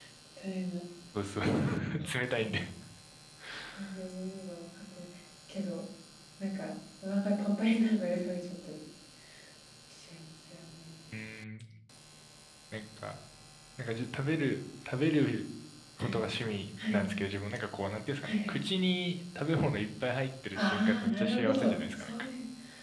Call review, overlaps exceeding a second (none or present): present